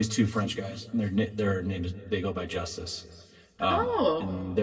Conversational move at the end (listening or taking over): listening